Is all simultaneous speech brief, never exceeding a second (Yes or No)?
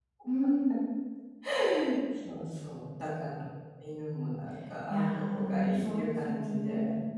No